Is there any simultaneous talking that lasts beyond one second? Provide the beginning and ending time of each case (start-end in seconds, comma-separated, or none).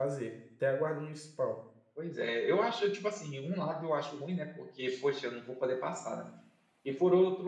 none